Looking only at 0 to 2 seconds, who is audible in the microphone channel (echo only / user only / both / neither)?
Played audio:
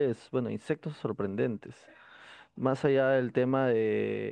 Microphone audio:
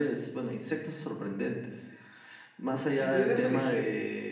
echo only